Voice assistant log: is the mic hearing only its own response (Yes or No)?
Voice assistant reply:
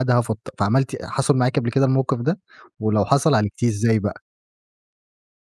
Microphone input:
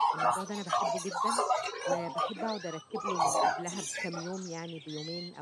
No